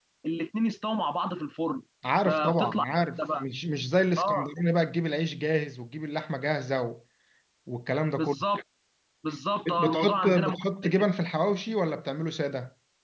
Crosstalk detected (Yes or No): Yes